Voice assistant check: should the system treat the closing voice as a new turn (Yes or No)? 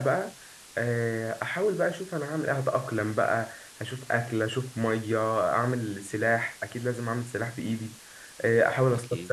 No